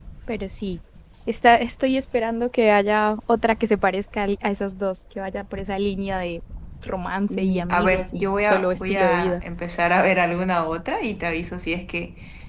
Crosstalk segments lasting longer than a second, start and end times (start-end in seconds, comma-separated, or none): 7.3-9.4